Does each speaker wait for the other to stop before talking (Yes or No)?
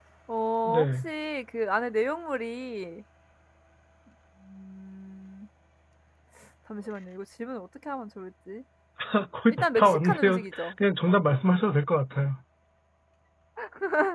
No